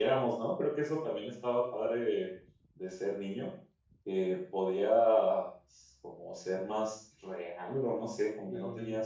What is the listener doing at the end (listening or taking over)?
listening